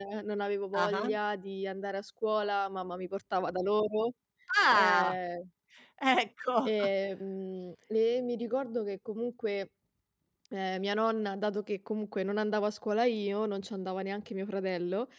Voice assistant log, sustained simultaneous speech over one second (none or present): none